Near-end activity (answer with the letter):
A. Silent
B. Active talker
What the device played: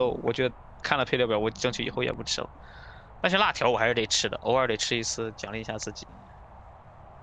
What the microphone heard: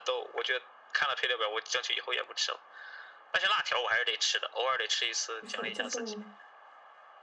B